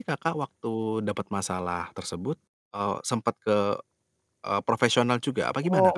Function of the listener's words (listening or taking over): taking over